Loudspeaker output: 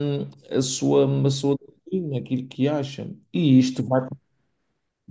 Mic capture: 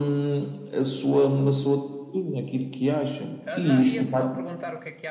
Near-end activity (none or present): present